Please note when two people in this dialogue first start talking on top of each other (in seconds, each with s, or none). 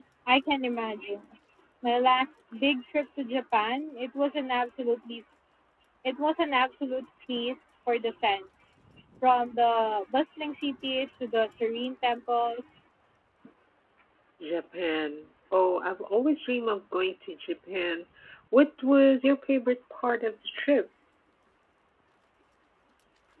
none